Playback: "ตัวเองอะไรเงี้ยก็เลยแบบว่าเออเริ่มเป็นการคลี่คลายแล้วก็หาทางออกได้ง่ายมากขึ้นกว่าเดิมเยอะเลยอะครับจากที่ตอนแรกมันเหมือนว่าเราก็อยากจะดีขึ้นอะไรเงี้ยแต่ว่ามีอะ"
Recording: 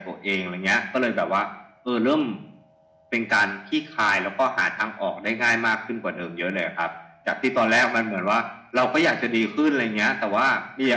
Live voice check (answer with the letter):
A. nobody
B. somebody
A